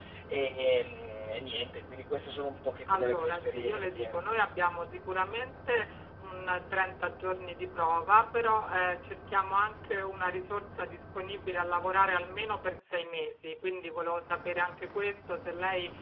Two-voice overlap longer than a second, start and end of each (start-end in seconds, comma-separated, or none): 2.9-4.1